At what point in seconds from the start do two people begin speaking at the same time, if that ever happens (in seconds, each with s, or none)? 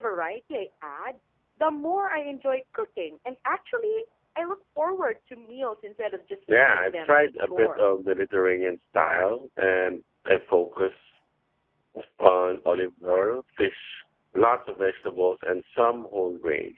6.5 s